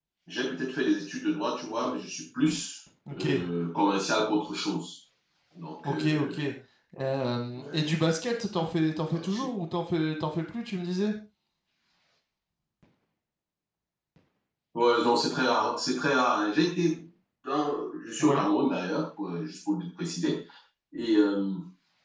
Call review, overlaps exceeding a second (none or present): none